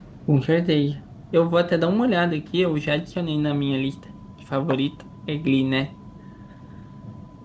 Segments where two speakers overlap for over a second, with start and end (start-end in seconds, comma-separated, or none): none